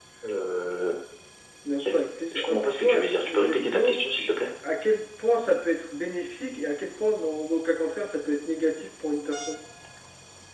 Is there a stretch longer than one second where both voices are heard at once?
Yes, from 2.3 s

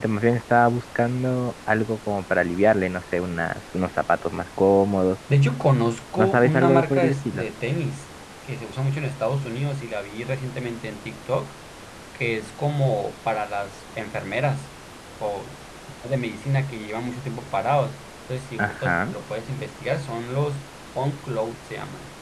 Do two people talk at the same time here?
Yes, from 6.2 s

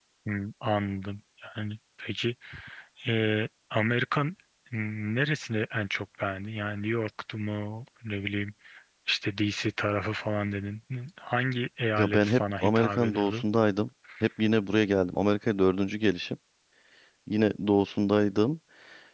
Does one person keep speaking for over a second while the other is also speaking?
Yes, from 12.0 s

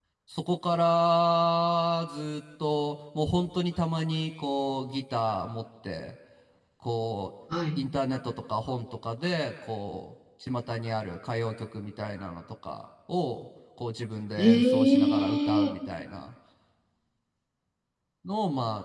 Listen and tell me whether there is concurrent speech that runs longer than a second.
Yes, from 14.4 s

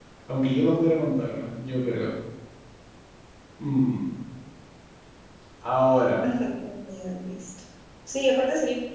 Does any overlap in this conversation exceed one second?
No

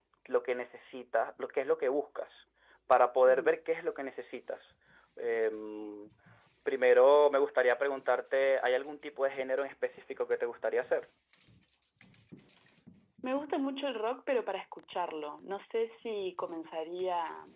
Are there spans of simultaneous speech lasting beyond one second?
No

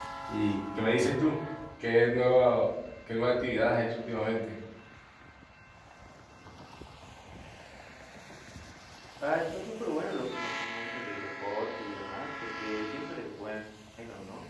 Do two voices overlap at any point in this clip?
No

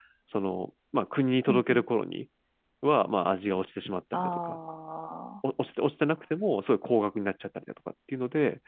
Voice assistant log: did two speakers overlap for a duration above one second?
No

